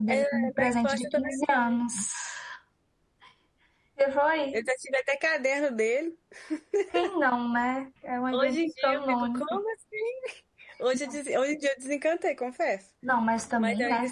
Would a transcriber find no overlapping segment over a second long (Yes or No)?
No